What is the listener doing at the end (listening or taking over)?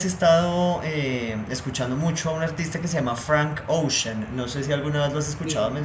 taking over